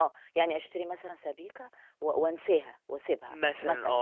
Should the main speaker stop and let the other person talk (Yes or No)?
Yes